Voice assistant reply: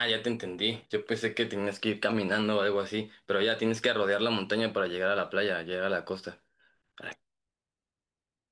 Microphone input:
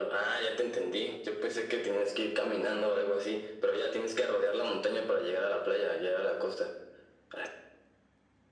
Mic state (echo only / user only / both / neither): echo only